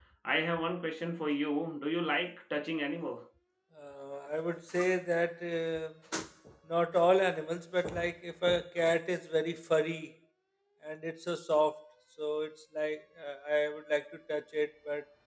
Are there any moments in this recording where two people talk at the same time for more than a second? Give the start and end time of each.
none

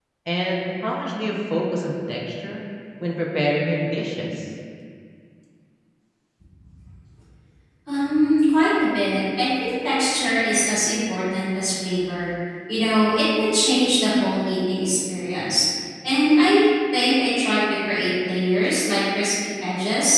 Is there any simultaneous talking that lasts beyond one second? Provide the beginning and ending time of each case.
none

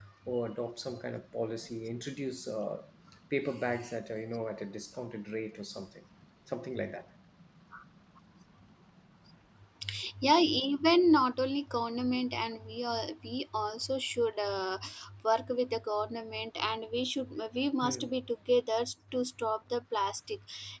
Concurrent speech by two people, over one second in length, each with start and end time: none

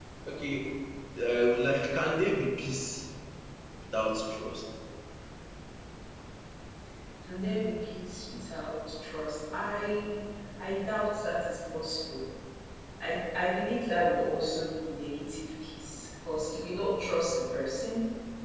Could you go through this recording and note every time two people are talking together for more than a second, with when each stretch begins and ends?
none

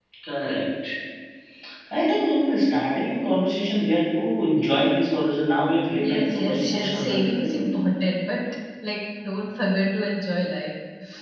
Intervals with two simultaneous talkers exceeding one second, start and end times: 6.0-7.2

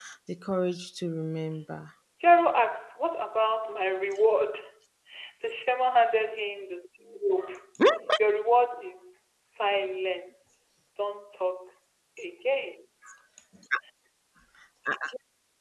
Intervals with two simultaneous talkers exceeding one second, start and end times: none

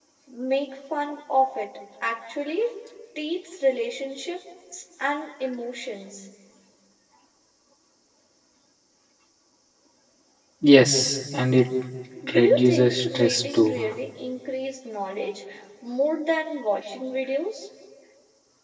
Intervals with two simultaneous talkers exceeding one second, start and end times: 12.3-13.8

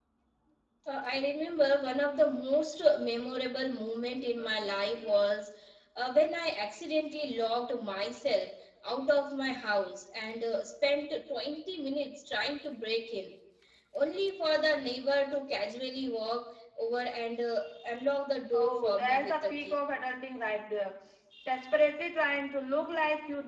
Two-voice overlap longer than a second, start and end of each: 18.5-19.8

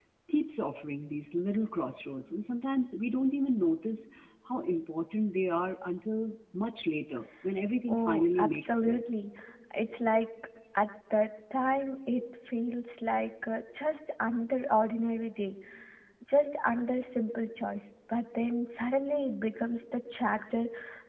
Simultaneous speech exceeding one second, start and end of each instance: 7.9-9.2

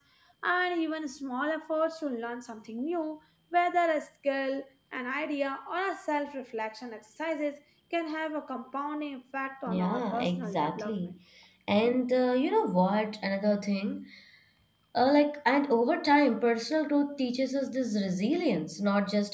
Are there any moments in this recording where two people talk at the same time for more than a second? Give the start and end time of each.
9.7-11.0

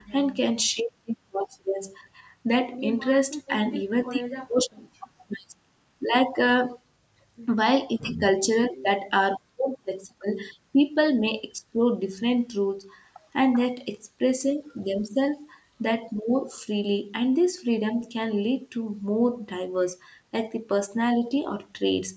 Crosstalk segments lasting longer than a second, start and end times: 2.7-4.2

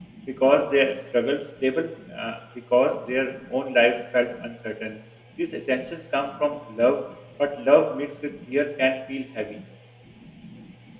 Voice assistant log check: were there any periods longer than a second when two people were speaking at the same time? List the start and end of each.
none

